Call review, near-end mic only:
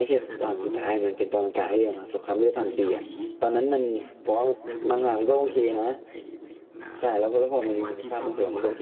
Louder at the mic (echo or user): user